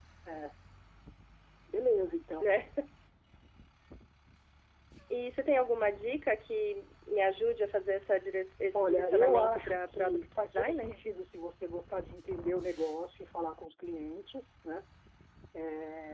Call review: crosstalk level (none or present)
present